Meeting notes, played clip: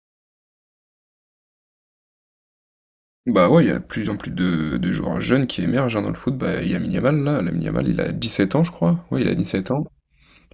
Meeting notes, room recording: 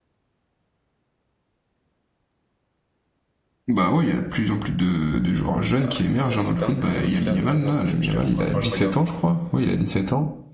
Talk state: both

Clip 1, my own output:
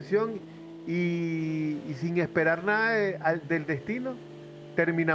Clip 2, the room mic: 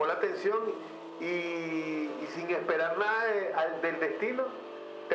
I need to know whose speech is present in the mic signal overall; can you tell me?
echo only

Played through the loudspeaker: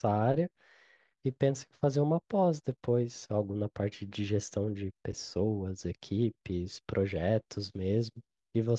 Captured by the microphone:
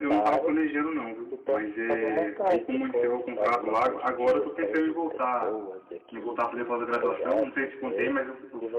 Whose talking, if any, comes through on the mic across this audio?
both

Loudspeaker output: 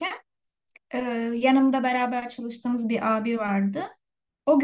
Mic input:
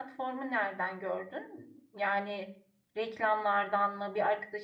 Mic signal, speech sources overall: user only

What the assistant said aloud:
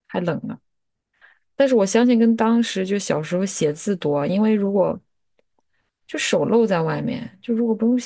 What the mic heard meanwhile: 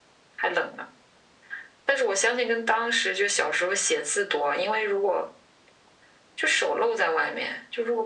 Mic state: echo only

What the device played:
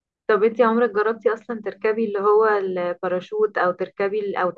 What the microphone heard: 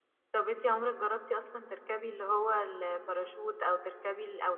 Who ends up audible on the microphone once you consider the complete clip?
echo only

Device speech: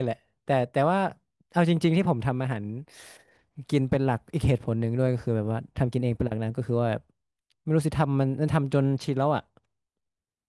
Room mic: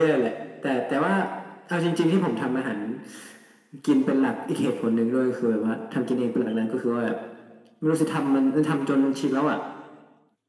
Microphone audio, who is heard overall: echo only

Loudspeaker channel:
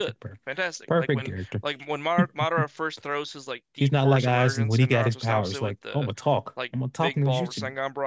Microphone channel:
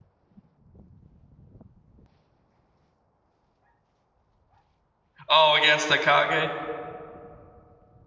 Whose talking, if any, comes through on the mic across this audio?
user only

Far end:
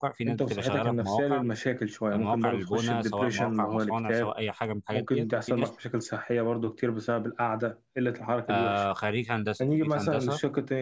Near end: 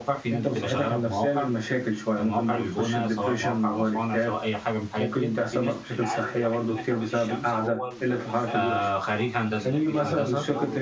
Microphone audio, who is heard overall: both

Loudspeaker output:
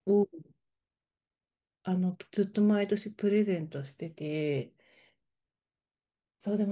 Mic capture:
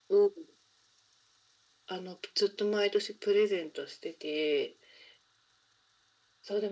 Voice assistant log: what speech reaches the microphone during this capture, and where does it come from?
echo only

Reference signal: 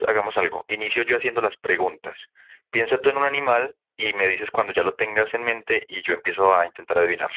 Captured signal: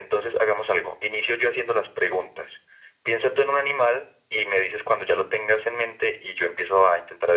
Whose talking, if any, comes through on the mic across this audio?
echo only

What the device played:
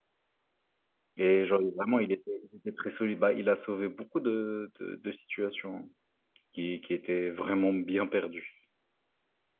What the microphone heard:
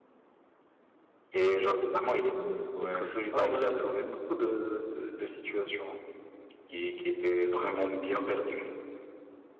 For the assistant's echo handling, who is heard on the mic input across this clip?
both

